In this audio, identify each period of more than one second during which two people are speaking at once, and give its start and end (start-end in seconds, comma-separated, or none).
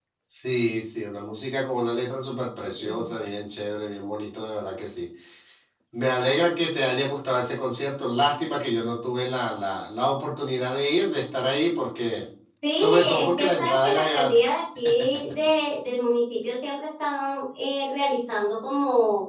12.7-14.5